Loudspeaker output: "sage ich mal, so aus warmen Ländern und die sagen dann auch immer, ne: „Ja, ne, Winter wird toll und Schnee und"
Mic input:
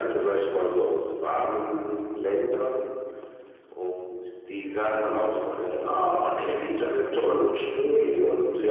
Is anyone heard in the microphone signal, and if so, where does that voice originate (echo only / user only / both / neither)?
echo only